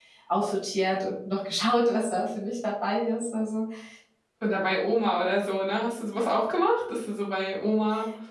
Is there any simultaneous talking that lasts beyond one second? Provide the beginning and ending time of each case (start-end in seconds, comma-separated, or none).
none